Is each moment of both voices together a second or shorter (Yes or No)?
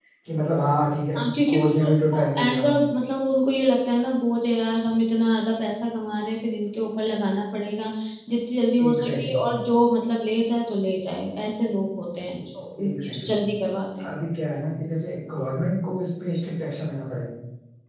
No